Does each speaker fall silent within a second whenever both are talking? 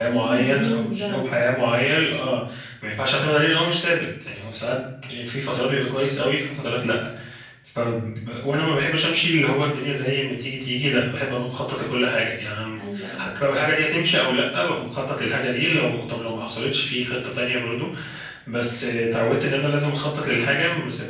No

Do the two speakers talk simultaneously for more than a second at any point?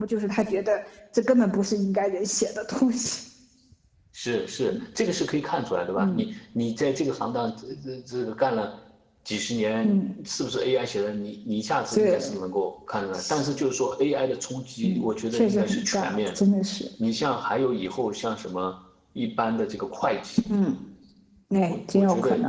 Yes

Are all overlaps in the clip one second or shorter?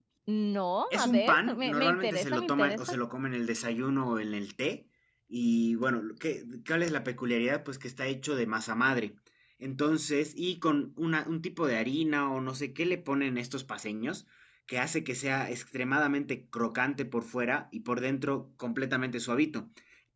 No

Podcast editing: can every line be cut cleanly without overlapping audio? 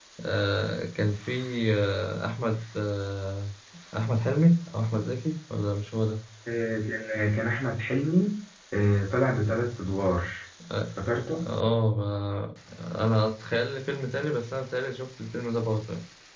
Yes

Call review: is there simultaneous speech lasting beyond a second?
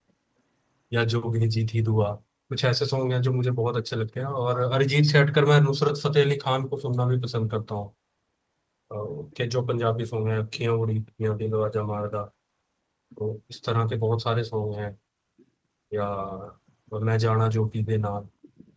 No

